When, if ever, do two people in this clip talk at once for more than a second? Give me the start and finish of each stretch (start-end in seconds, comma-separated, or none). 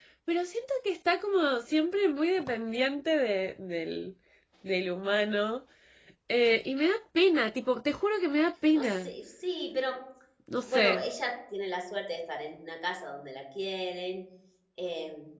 none